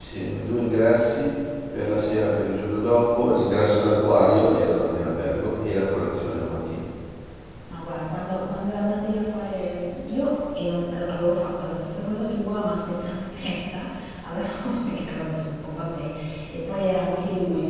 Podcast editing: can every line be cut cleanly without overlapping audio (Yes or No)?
Yes